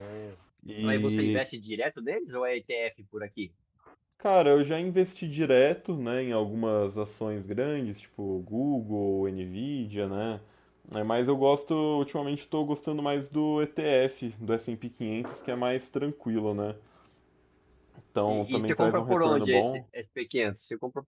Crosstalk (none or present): present